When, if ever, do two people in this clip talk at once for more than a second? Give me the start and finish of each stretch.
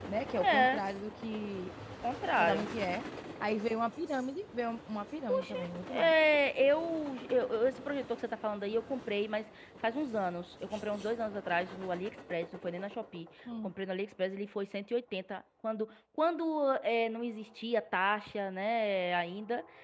none

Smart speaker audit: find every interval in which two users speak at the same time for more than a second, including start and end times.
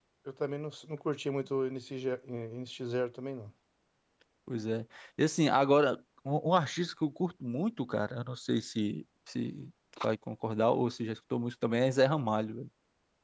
none

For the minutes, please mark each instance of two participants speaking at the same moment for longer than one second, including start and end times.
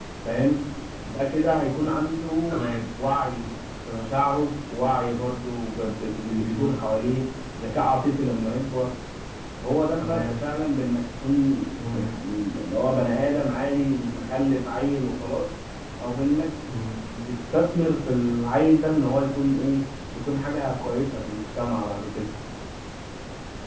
none

